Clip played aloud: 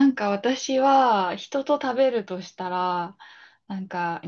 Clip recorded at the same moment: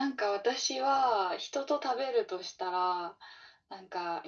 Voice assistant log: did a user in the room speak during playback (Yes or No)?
No